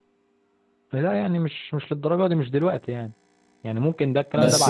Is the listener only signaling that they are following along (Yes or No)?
No